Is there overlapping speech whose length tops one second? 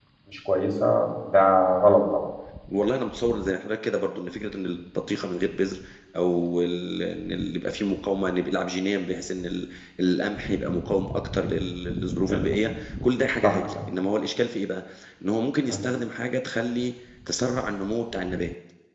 No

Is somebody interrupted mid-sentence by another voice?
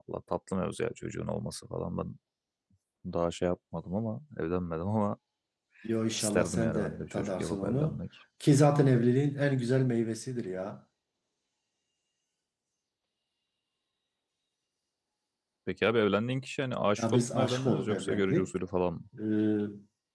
Yes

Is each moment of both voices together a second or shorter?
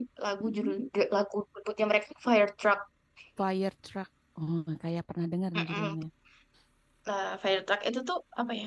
Yes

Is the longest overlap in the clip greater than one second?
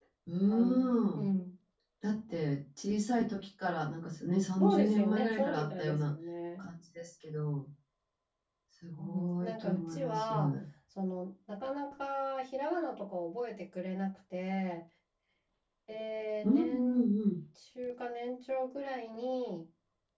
Yes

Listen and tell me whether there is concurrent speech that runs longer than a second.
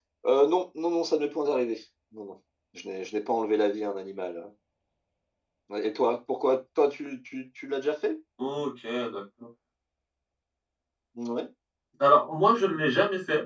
No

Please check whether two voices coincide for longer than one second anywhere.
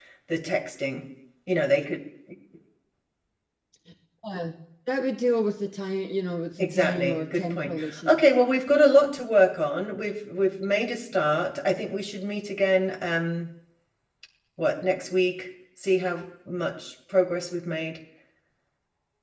Yes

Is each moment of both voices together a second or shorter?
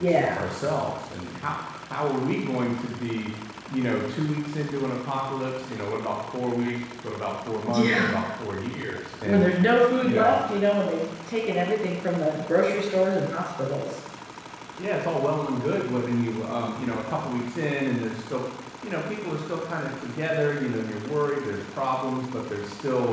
Yes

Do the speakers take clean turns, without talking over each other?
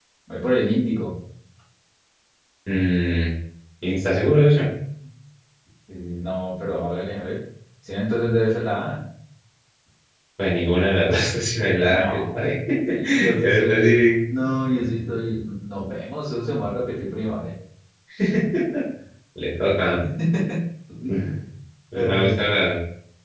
No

